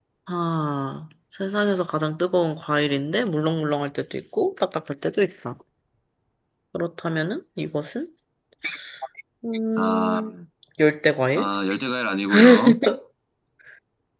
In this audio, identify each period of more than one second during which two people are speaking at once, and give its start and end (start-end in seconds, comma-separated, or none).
none